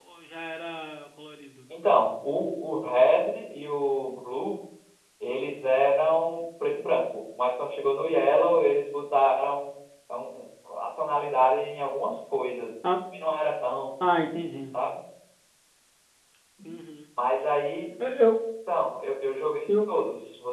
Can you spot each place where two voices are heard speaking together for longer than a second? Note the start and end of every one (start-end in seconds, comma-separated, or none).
none